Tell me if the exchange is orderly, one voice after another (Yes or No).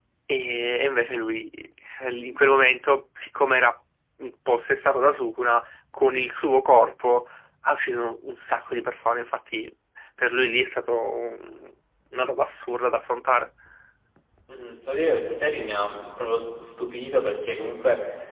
Yes